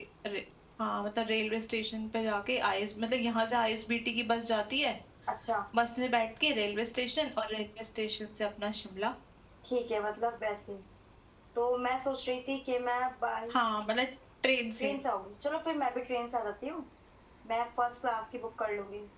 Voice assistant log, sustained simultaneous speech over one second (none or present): none